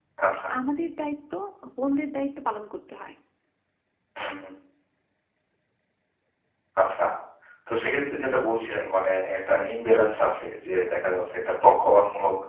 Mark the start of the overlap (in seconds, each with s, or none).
none